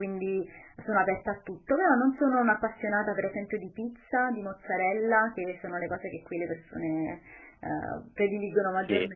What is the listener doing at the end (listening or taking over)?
listening